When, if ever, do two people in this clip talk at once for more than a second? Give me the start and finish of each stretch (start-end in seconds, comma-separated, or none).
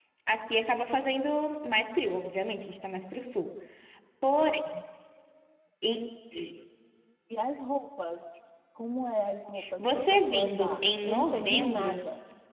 9.8-12.0